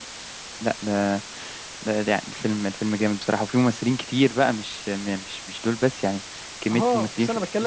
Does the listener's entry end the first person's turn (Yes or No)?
Yes